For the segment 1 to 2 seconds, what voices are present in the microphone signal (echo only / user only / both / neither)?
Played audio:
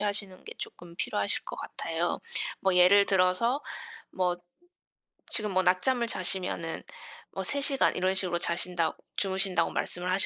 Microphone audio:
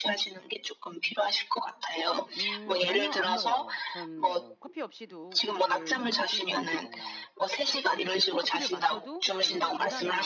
echo only